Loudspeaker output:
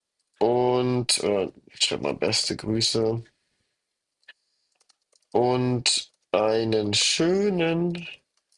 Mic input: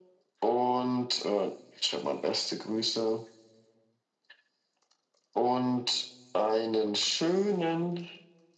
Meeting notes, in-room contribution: none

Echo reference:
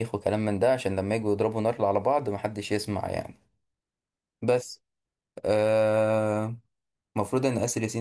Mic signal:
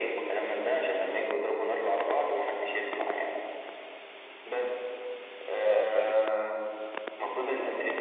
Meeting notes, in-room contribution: present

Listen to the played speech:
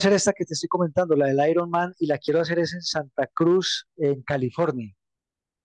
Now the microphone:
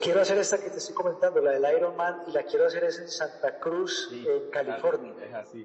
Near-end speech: present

